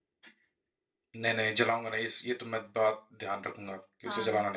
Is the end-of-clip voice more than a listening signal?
Yes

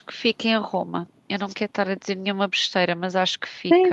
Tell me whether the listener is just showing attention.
No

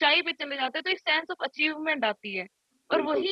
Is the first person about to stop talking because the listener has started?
No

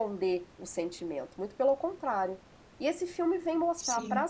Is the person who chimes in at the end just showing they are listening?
Yes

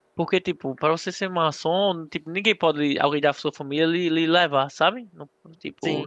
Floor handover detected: No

